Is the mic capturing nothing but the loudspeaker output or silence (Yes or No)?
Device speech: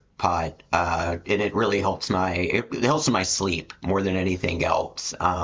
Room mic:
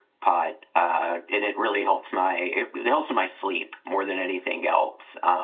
Yes